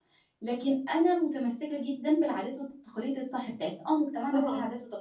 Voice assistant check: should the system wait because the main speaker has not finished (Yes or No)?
Yes